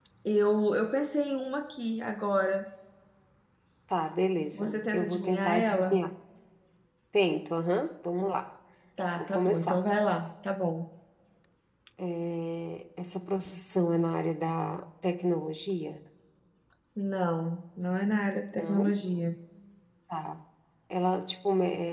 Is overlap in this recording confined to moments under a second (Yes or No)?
No